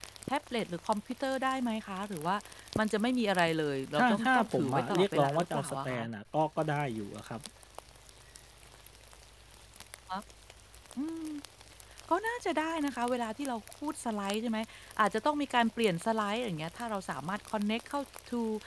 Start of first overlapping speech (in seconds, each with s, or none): 4.0 s